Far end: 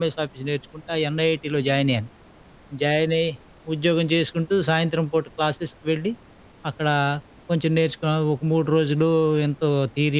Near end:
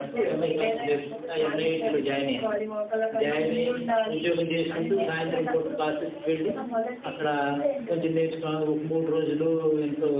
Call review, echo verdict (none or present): present